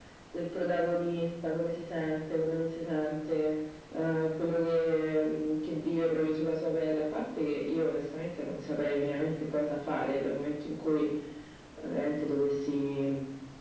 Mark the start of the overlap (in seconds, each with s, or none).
none